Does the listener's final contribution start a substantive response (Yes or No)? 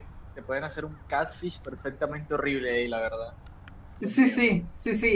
Yes